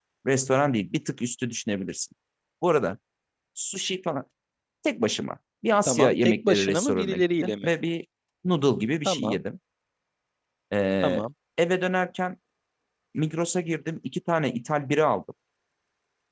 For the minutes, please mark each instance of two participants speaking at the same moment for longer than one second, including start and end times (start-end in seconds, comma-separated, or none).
5.8-7.7